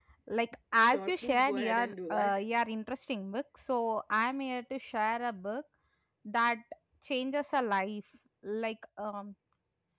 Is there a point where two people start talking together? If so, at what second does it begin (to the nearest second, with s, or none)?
1 s